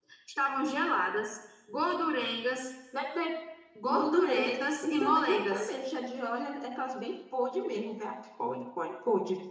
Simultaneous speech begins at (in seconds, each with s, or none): 3.9 s